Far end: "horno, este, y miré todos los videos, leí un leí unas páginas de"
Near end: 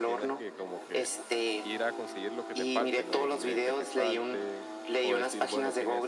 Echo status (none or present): present